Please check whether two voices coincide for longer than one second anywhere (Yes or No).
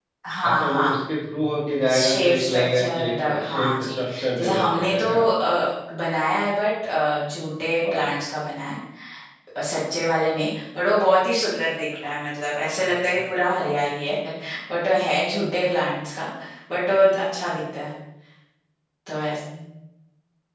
Yes